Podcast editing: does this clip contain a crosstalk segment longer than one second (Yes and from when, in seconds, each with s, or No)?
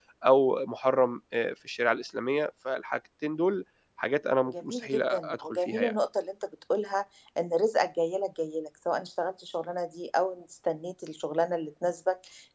Yes, from 4.5 s